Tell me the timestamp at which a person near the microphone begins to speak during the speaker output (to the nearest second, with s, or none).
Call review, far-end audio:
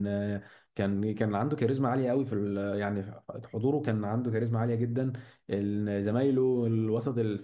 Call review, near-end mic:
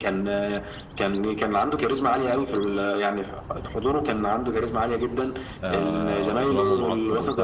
6 s